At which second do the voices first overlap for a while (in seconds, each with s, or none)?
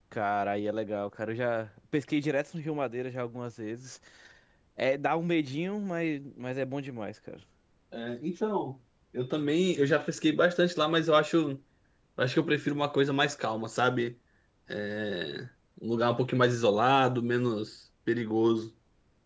none